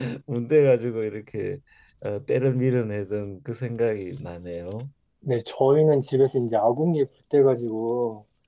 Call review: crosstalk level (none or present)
none